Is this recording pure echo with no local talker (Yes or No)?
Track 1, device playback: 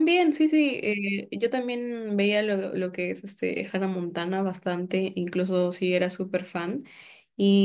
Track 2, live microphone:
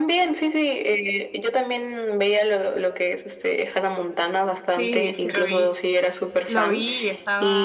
No